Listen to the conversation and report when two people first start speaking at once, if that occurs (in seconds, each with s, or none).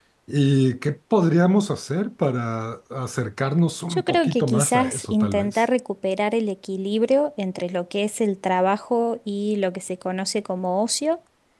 3.9 s